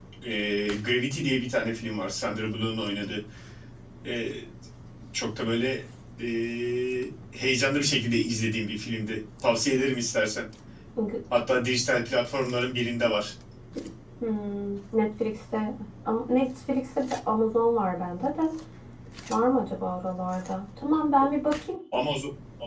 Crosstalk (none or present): none